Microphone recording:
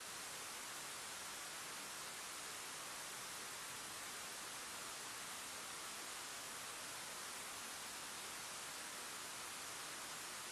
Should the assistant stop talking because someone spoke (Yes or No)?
No